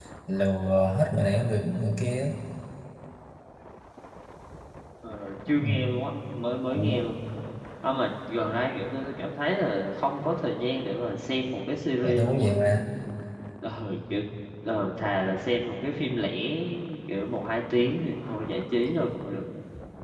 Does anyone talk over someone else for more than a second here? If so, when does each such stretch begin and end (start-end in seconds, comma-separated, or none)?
none